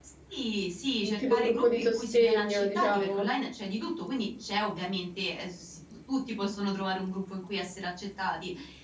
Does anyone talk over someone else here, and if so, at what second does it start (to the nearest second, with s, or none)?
1 s